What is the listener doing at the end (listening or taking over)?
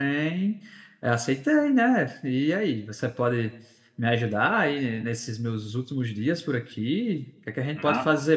listening